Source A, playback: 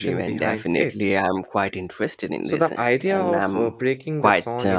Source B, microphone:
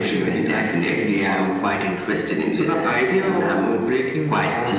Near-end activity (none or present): none